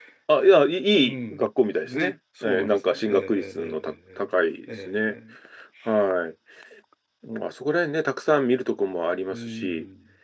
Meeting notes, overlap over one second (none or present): present